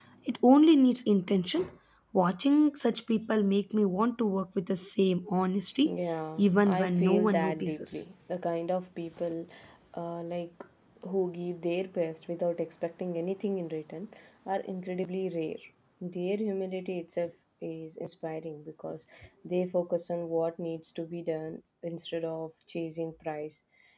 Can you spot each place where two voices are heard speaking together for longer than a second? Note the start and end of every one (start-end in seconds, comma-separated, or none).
6.4-8.0